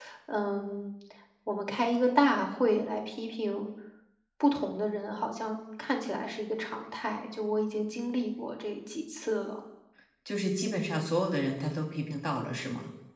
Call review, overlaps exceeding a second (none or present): none